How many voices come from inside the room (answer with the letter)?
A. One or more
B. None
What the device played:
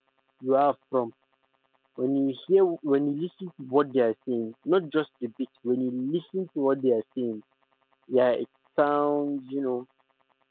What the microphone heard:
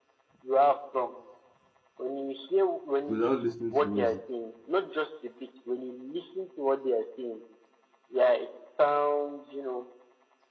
A